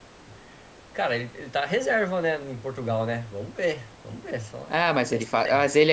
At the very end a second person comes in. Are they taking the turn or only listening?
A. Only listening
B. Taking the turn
B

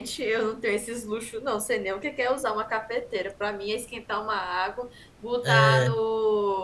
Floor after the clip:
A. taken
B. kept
B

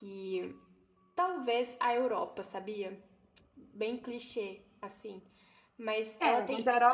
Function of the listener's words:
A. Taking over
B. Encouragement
A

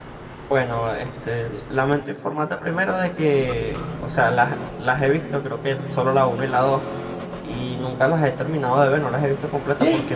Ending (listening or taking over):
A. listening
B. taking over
A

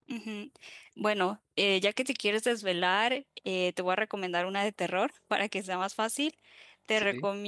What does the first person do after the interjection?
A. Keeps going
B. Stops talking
A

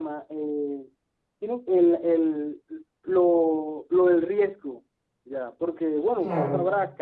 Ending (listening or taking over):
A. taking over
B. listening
B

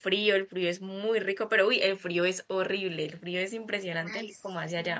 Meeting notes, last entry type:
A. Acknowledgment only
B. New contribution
B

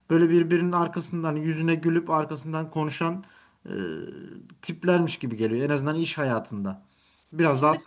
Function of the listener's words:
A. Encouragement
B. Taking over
A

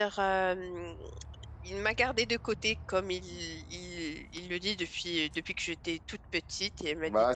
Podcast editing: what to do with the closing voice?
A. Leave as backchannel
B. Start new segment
B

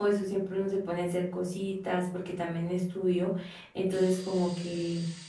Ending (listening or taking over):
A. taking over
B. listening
B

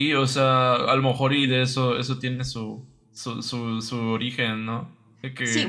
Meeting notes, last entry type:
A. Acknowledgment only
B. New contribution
B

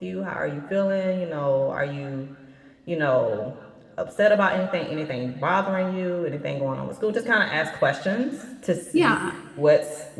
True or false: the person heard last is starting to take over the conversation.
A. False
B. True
A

